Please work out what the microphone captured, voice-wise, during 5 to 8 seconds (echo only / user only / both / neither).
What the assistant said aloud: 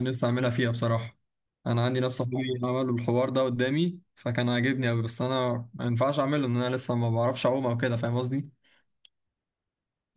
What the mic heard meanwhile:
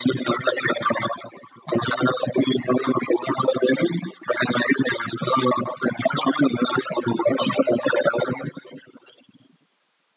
echo only